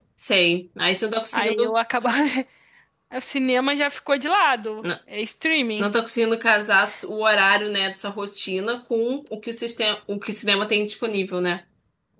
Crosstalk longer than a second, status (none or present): none